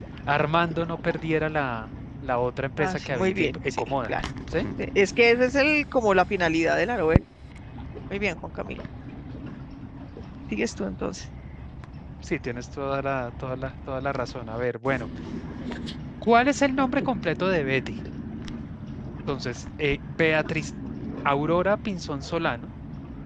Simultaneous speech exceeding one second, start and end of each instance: 2.8-4.1

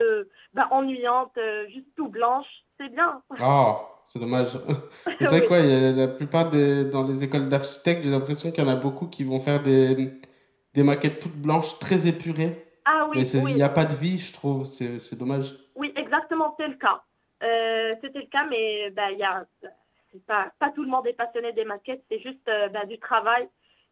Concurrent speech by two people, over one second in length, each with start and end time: none

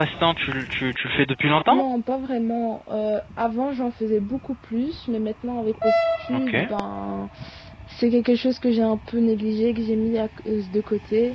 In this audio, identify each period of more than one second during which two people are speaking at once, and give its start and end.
none

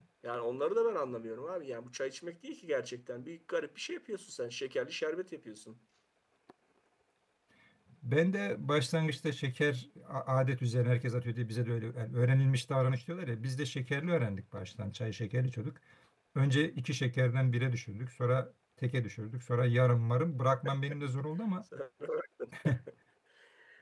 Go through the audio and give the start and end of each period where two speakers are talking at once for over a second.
none

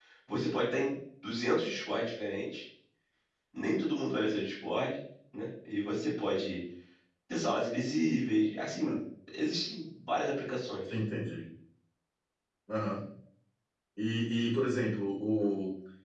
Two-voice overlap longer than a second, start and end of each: none

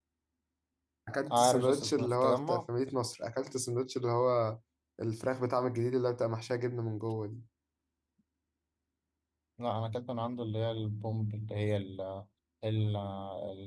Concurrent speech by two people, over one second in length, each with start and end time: 1.3-2.7

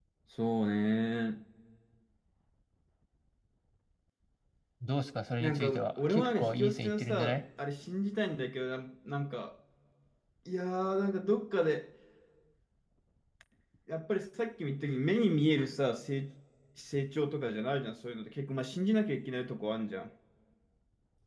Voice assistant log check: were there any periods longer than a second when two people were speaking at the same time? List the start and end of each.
5.4-7.4

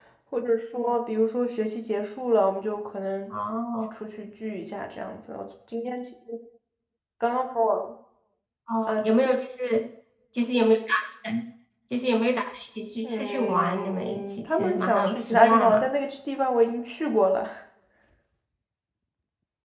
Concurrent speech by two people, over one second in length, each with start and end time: 13.0-15.8

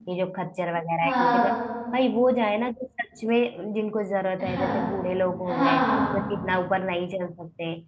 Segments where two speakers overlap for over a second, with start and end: none

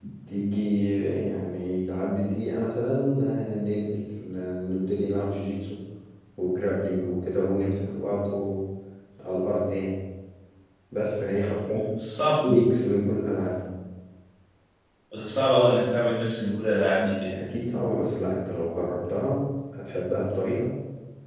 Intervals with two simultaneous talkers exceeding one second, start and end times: none

